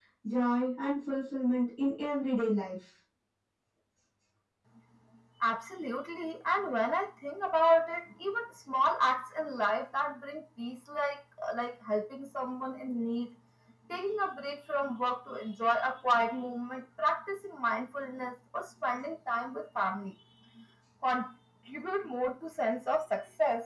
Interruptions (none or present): none